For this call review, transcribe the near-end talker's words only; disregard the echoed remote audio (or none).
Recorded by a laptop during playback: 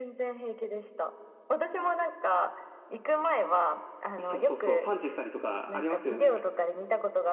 そうそうそう、パンチしたりとかありますよね。